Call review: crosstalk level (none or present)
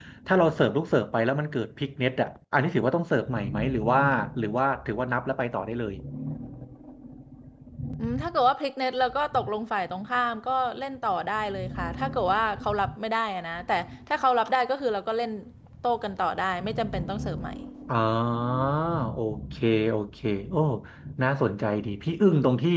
none